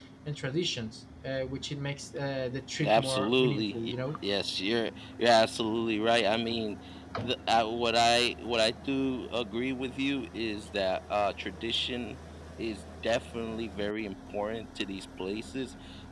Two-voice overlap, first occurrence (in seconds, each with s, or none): 2.8 s